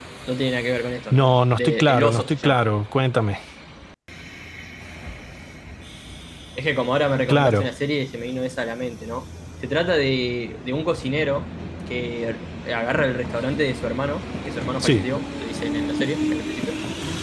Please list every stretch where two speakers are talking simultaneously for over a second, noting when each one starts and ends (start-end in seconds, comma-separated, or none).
1.1-2.6